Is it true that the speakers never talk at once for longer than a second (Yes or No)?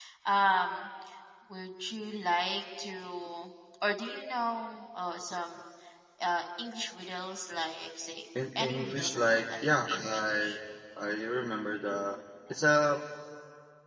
No